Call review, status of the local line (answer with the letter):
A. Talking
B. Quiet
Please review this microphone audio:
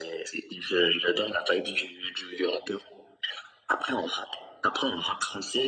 B